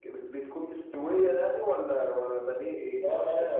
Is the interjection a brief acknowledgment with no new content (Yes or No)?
No